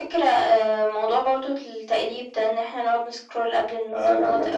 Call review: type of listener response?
taking over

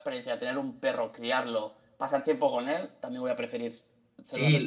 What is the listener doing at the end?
taking over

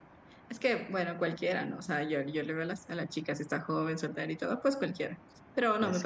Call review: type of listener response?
listening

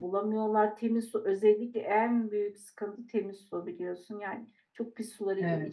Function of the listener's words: listening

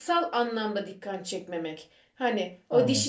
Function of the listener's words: listening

